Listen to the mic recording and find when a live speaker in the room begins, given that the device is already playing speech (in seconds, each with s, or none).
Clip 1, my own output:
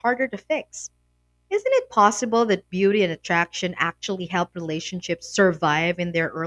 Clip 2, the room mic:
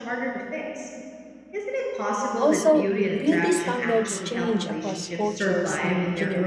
2.4 s